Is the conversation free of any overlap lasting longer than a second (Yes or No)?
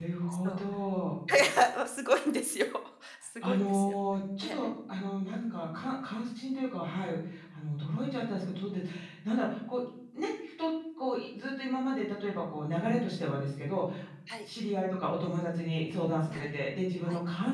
Yes